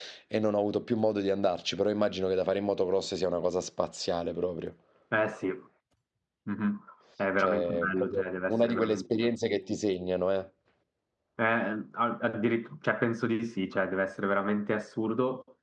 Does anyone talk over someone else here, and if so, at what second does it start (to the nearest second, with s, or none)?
7 s